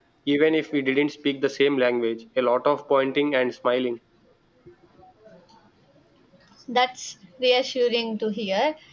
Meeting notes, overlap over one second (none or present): none